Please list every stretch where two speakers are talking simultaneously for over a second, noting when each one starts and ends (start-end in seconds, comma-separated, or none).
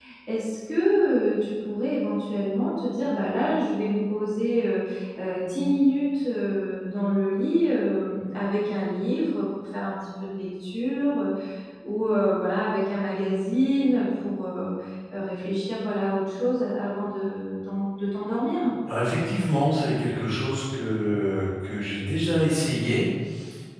none